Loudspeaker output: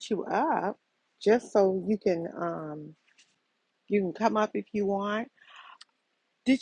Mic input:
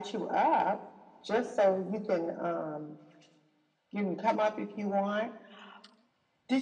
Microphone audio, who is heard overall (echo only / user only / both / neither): echo only